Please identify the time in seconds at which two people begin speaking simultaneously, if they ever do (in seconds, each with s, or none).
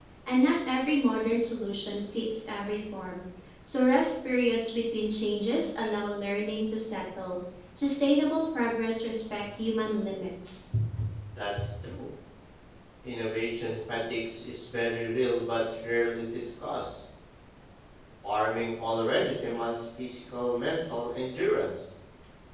none